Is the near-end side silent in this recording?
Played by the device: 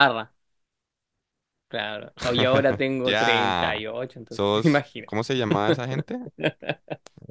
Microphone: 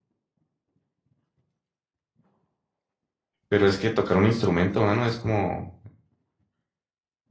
No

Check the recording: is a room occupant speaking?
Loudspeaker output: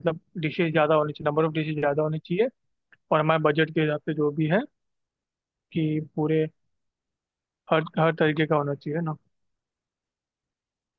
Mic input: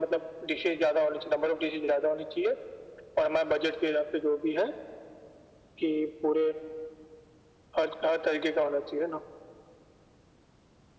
No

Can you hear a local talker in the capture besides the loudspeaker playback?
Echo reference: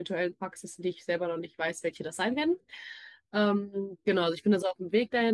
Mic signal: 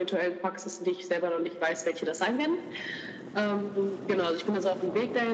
No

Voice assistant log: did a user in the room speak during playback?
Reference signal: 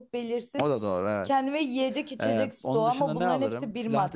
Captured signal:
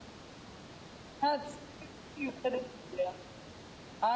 Yes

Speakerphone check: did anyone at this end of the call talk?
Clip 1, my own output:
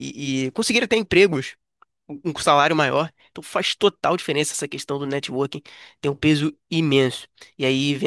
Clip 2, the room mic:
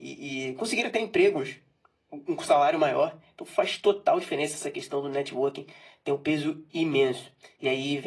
No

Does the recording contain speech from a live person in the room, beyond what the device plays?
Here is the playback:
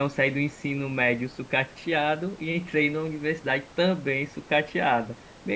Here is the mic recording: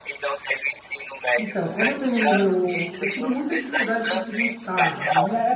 Yes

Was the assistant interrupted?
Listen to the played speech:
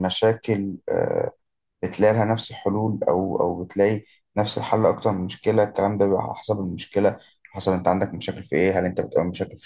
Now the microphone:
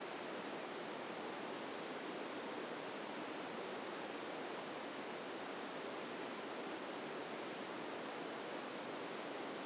No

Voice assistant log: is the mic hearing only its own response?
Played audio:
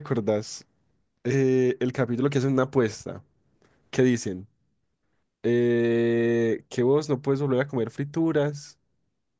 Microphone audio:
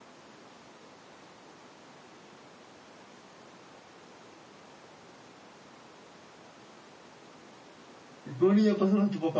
No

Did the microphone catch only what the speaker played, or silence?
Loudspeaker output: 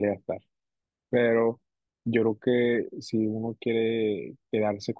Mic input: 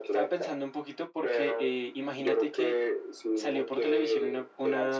No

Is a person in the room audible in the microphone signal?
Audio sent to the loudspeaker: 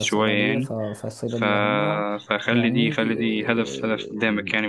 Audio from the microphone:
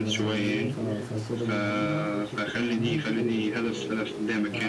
Yes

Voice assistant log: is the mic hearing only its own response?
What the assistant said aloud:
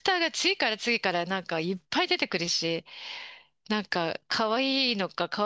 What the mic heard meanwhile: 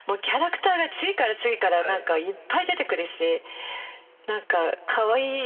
No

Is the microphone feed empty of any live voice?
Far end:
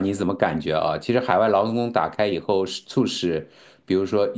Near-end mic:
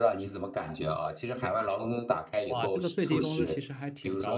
No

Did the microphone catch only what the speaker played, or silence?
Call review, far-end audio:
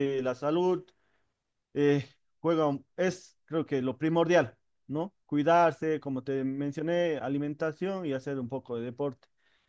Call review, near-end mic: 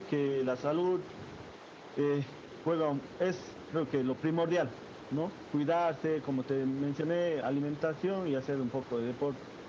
Yes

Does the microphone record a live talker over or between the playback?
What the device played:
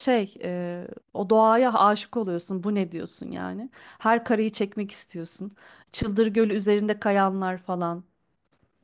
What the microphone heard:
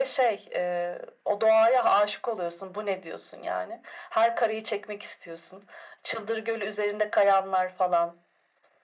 No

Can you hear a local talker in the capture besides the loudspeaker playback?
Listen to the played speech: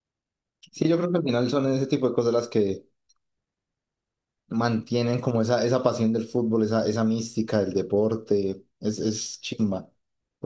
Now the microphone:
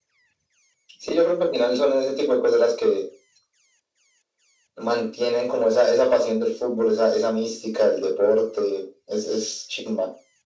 No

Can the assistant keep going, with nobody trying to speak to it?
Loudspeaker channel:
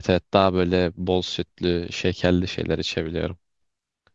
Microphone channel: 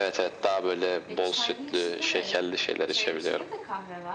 No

